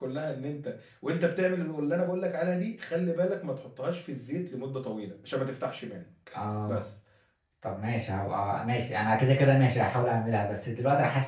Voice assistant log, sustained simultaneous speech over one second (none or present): none